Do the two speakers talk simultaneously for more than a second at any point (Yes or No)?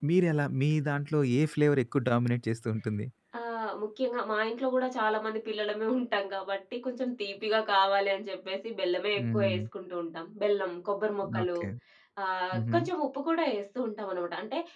No